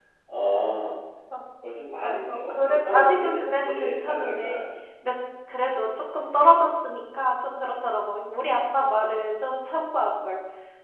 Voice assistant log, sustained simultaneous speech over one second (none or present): present